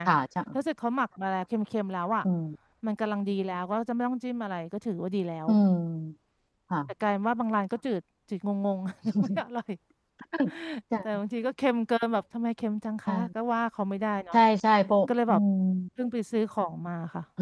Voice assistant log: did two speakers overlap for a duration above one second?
No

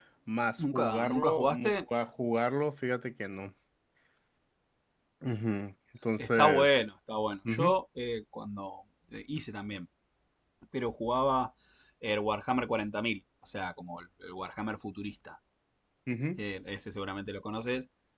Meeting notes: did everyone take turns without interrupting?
No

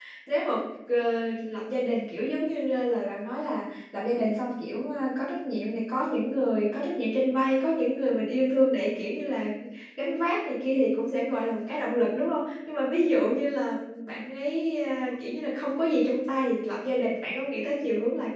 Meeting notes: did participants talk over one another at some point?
No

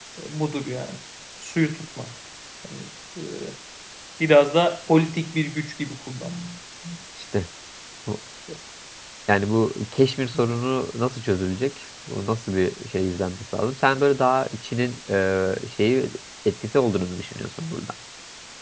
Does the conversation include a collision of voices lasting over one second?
No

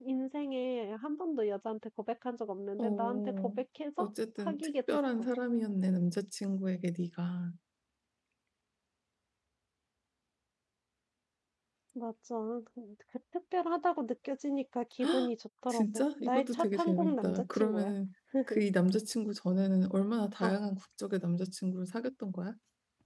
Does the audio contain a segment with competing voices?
Yes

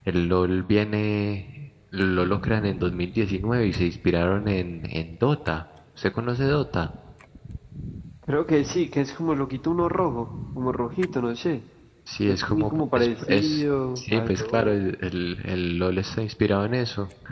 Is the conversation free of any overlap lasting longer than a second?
No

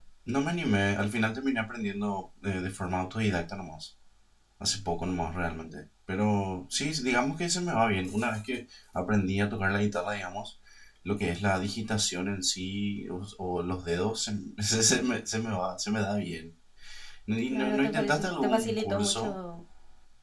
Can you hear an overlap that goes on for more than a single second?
Yes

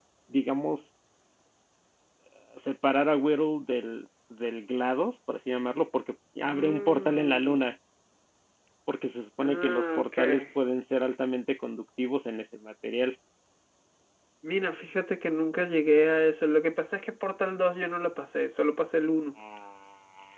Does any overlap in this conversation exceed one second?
Yes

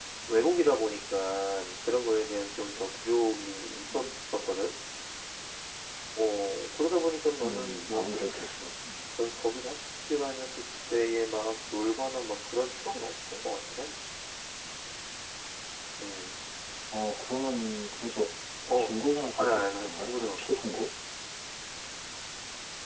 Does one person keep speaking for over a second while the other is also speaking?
Yes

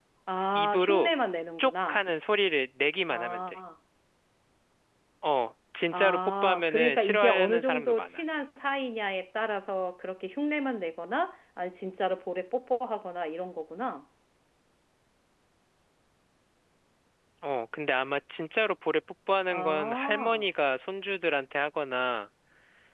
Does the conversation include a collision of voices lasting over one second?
Yes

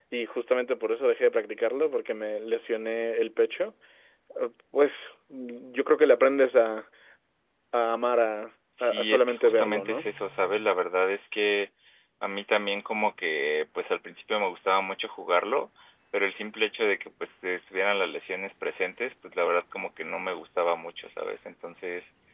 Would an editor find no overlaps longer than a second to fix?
No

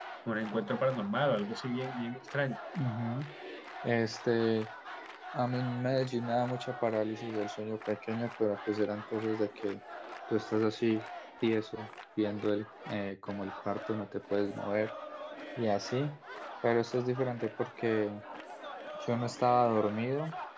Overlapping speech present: No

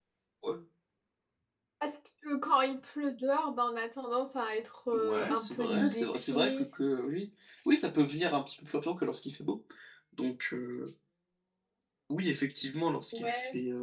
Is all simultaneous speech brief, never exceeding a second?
No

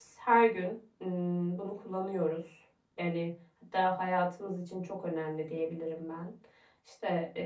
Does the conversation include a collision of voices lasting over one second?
No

